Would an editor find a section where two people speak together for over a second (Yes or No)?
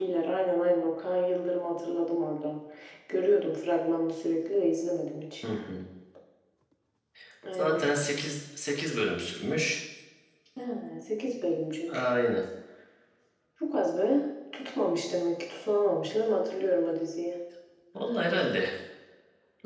No